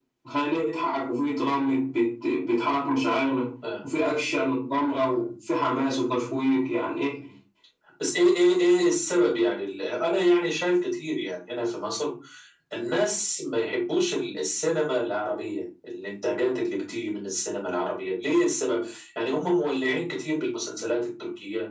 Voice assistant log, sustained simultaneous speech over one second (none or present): none